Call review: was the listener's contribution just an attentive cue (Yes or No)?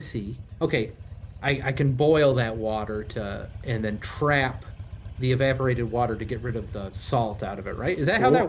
No